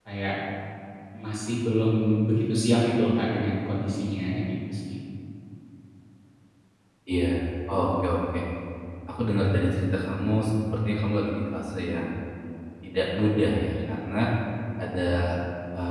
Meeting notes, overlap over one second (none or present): none